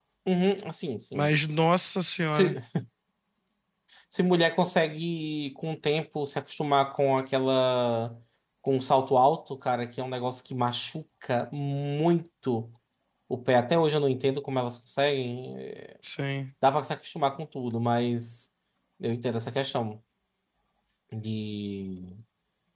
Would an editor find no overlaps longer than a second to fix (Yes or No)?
Yes